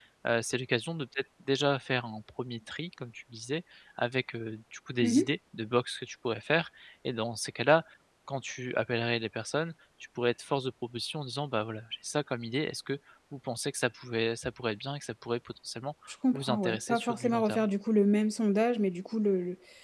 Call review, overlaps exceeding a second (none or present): present